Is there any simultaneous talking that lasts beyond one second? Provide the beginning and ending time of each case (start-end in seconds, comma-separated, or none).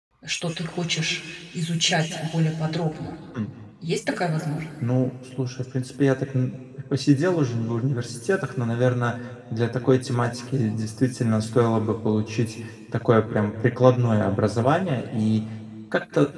none